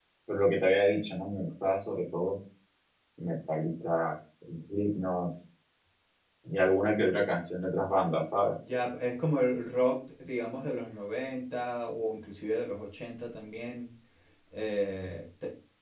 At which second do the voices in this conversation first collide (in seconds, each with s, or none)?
none